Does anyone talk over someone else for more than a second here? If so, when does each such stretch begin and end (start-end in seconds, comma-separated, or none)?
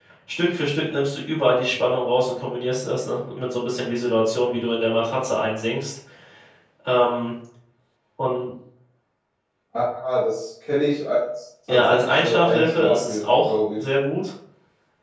11.7-13.8